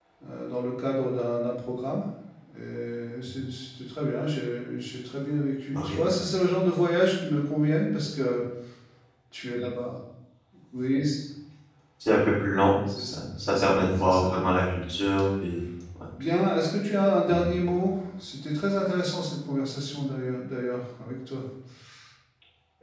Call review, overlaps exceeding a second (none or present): present